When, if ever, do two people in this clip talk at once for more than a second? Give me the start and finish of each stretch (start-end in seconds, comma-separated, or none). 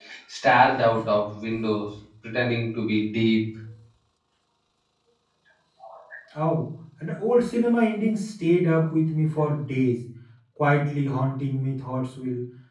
none